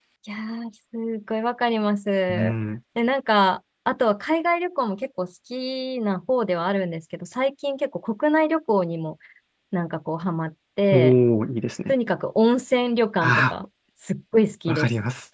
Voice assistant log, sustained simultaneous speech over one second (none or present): none